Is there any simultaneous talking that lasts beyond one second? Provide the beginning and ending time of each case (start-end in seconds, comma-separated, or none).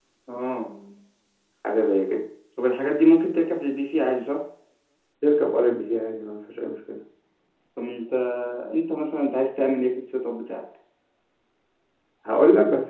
none